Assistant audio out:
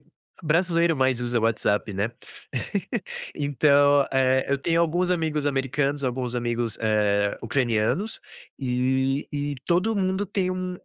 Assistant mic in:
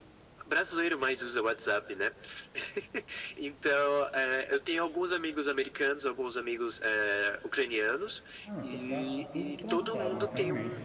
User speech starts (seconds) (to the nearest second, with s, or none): 8 s